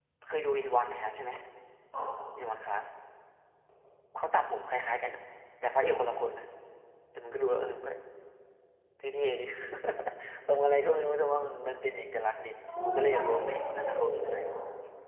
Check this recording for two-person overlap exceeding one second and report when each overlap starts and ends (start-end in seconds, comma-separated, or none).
12.8-14.4